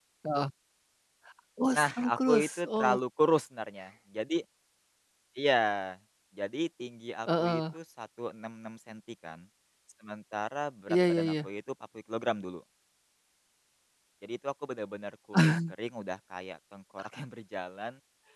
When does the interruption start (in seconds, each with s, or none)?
1.8 s